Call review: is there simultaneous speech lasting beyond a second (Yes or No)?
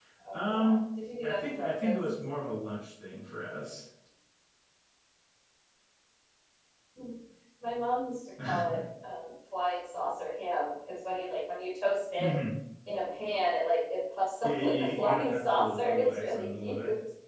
Yes